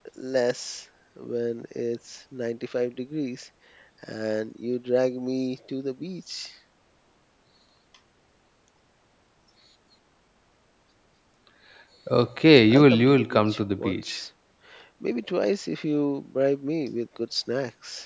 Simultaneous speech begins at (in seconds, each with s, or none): 12.7 s